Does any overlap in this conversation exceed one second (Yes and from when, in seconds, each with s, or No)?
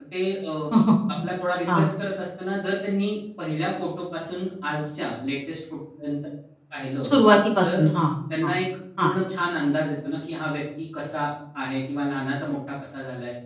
No